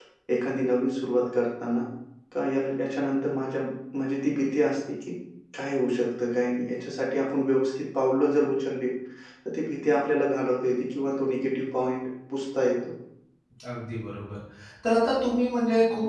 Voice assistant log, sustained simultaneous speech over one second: none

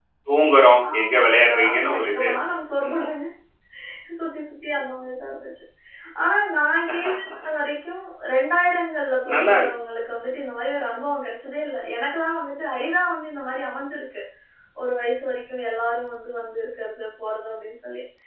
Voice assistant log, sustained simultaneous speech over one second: present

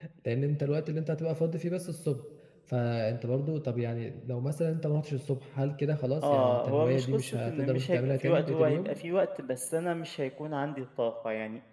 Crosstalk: present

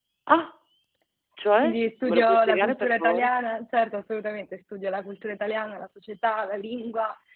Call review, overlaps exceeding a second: present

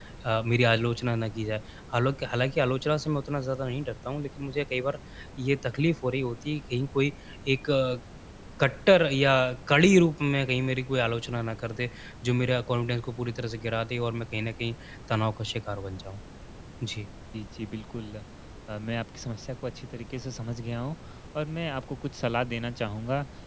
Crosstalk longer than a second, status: none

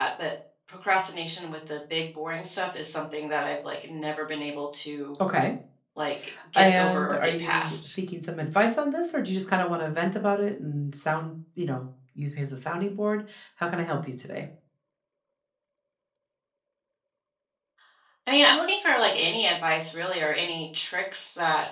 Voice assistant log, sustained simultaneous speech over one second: present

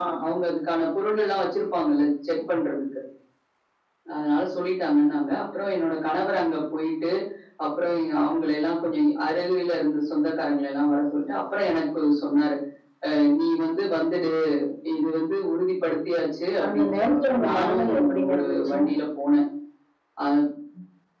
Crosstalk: present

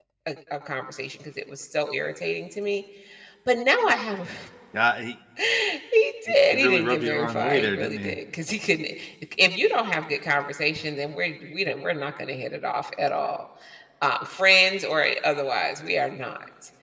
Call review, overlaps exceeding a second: present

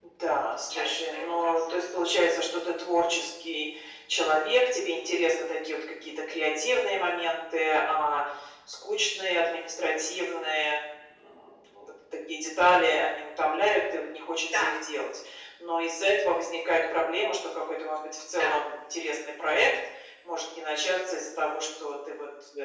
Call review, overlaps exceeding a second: present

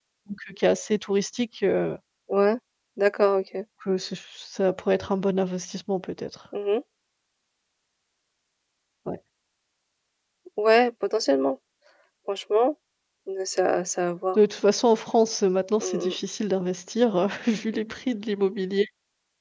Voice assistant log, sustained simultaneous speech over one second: none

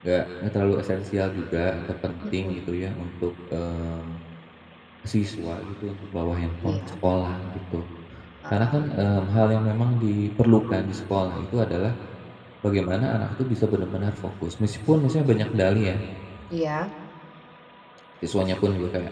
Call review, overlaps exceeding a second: none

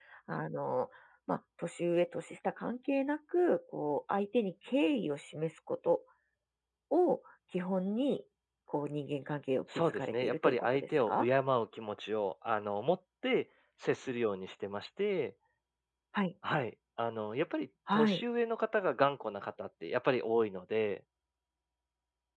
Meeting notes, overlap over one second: present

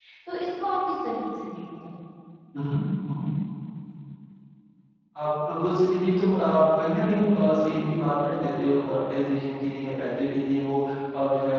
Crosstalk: none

